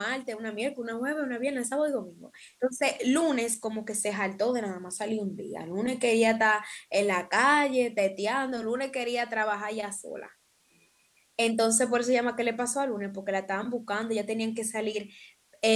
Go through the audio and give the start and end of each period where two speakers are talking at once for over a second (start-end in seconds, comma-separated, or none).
none